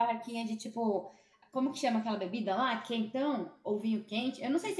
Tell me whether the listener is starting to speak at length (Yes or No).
Yes